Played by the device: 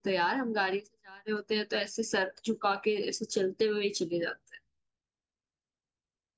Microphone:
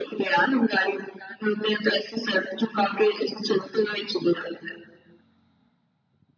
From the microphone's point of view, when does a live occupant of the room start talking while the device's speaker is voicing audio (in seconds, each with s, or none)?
none